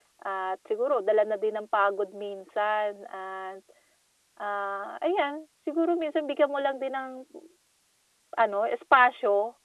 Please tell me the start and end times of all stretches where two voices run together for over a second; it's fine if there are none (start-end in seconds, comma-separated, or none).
none